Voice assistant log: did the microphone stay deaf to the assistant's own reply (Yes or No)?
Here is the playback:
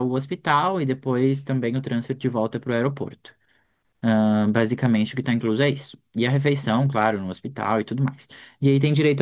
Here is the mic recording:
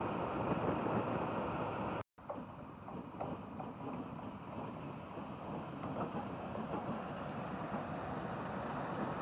Yes